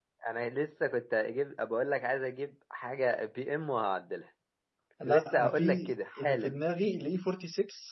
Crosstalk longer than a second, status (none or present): present